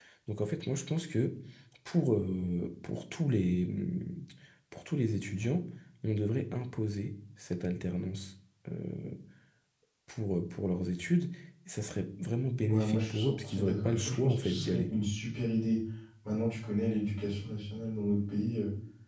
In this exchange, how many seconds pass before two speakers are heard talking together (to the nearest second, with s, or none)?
13 s